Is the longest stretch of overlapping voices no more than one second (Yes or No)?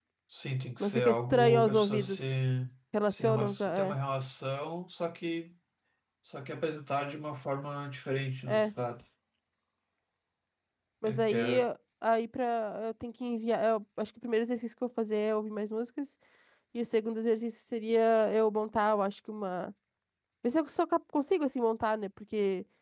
No